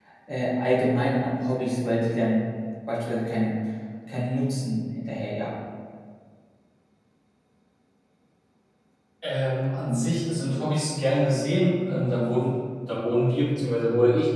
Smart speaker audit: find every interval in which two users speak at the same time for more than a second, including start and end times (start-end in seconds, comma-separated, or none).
none